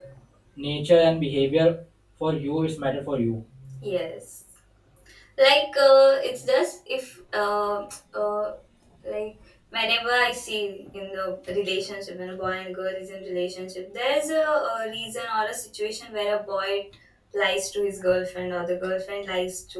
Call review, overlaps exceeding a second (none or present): none